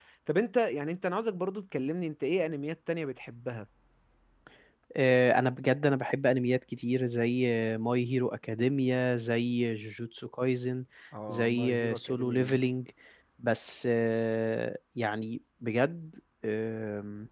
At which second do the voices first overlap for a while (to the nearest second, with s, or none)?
11 s